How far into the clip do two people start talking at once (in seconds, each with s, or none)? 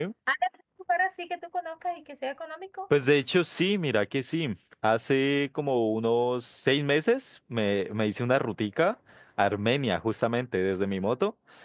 none